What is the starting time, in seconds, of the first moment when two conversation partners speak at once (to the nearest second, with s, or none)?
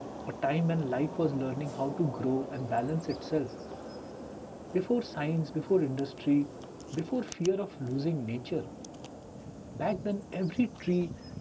none